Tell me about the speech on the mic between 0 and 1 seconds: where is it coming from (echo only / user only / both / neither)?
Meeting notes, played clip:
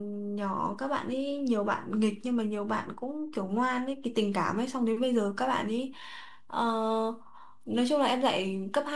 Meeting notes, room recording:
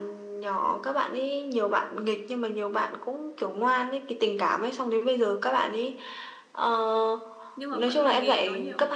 echo only